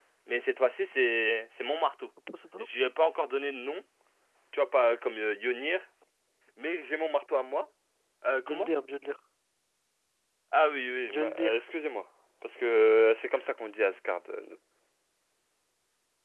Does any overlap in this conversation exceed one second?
No

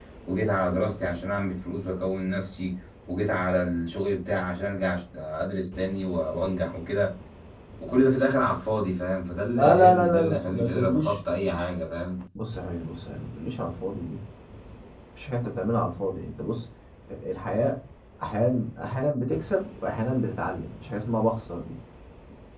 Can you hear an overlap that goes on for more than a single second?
Yes, from 9.5 s

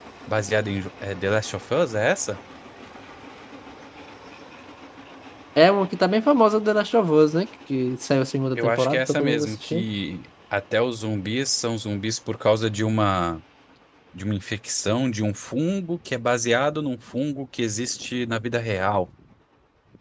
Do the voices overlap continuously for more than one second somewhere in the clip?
Yes, from 8.6 s

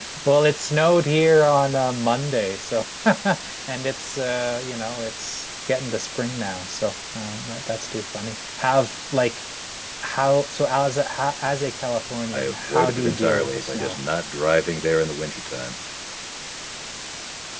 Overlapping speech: Yes, from 12.3 s

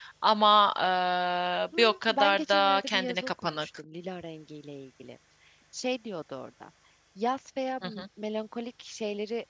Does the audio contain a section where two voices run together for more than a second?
Yes, from 1.8 s

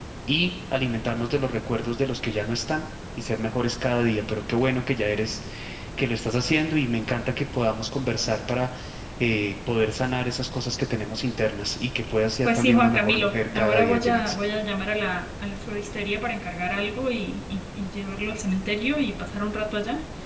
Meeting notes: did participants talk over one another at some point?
Yes, from 12.4 s

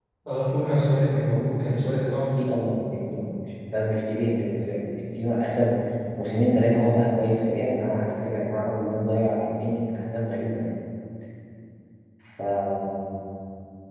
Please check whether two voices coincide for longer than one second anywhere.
No

